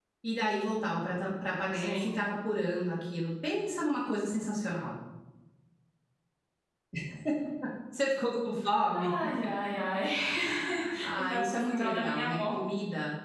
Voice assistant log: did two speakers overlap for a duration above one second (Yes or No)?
Yes